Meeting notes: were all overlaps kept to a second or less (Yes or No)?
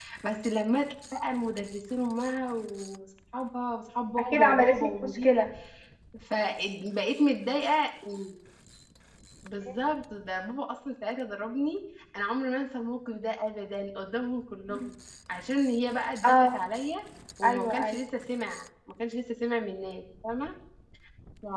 No